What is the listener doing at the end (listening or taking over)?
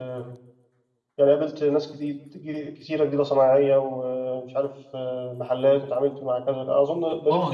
taking over